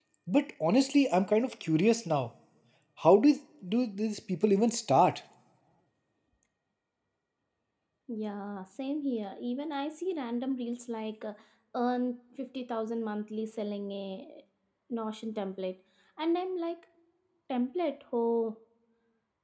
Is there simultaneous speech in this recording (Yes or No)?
No